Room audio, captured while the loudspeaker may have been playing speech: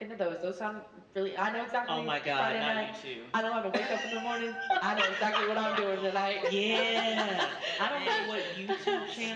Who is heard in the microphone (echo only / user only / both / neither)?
both